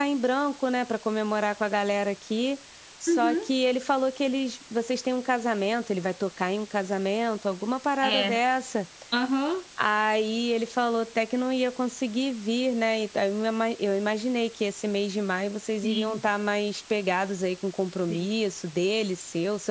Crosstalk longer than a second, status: none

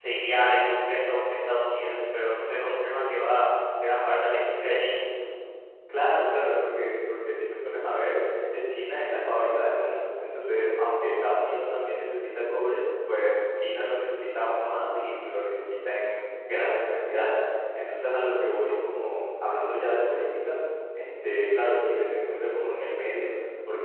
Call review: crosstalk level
none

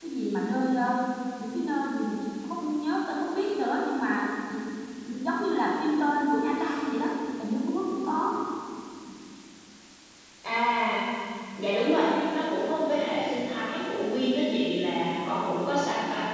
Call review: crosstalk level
none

